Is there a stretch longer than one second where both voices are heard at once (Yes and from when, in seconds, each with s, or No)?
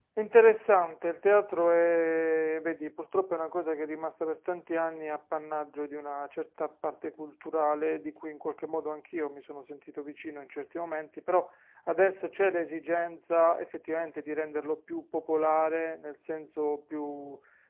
No